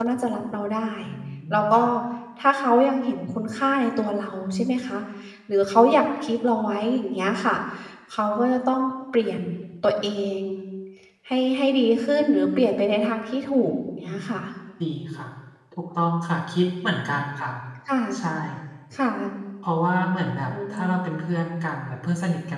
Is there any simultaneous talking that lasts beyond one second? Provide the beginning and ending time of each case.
none

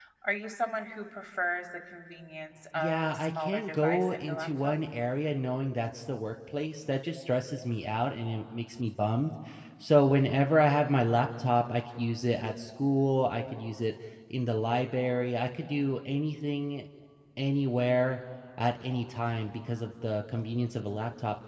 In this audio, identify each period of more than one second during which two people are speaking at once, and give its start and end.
2.7-4.7

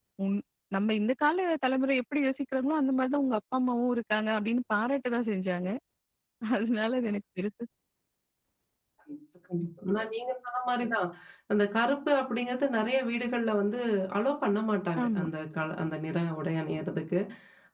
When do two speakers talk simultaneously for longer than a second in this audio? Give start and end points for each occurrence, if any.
none

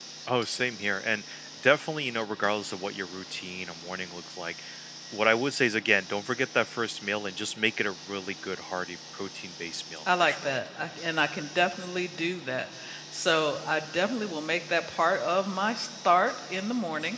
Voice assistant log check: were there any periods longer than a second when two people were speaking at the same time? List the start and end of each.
none

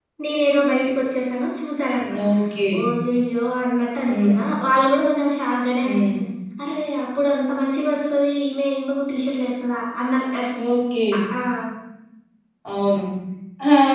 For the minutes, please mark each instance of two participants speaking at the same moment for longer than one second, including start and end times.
none

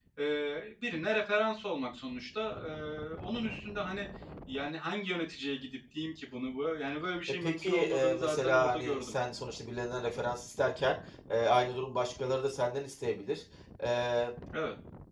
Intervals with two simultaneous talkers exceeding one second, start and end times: 7.4-9.1

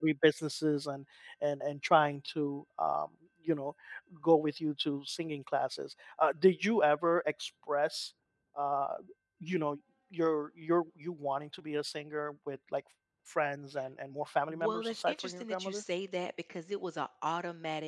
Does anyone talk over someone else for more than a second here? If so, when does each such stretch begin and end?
14.5-15.8

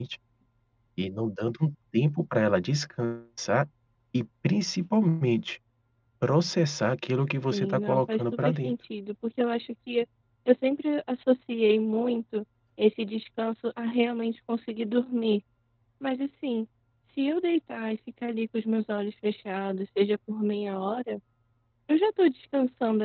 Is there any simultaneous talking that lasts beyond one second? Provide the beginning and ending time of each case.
7.5-8.7

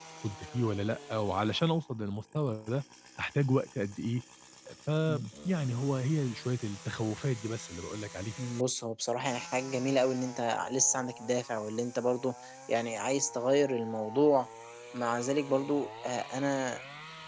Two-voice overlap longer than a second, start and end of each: none

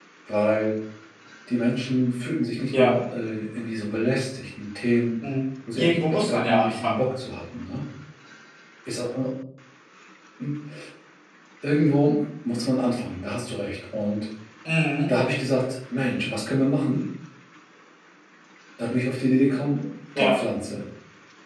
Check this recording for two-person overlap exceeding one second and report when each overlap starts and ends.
5.8-7.0

